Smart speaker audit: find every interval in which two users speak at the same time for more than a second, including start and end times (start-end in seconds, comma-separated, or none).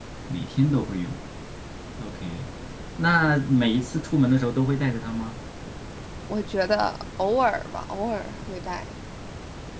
none